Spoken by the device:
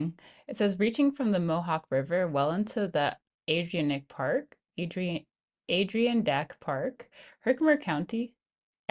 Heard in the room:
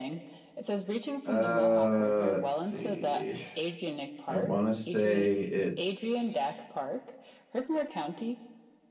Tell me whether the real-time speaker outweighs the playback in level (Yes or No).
Yes